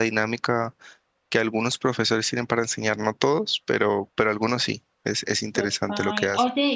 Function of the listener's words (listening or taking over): taking over